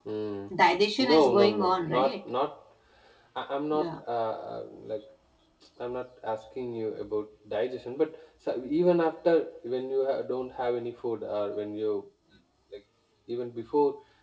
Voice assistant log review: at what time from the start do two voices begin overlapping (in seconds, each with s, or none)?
1.0 s